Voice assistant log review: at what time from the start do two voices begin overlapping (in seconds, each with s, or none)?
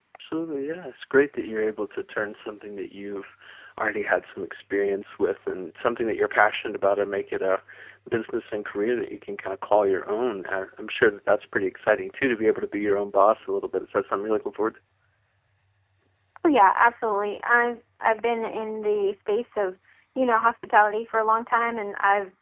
none